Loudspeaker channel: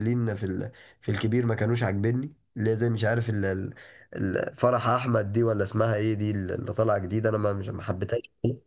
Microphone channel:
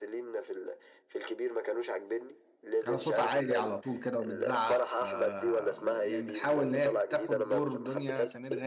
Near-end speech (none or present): present